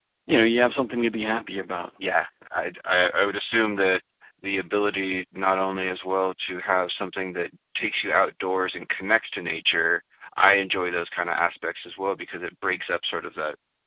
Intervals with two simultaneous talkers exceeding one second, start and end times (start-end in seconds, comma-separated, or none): none